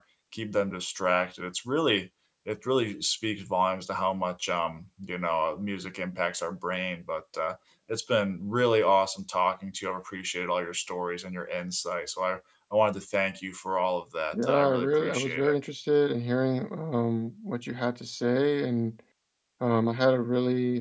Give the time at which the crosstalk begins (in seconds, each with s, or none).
14.3 s